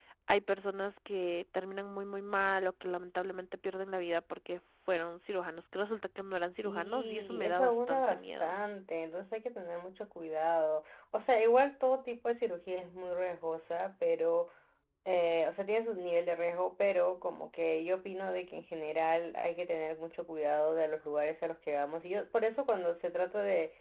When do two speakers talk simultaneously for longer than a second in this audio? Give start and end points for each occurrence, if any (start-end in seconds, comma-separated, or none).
6.6-8.5